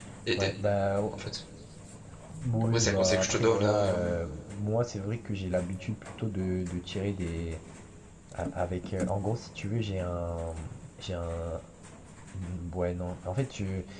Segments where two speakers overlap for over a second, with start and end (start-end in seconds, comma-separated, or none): 2.6-4.0